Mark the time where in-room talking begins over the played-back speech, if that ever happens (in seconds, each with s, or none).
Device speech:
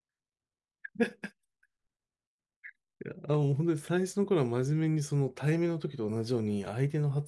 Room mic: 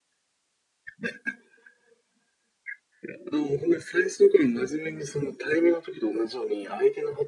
none